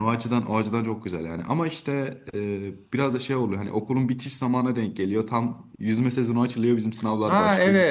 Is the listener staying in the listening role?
No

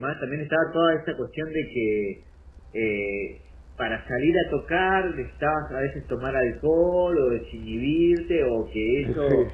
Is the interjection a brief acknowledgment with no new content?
Yes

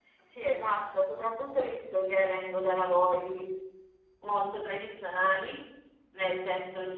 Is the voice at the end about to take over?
No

